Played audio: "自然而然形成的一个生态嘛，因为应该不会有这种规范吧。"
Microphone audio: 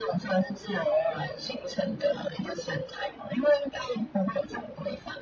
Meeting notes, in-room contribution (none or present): none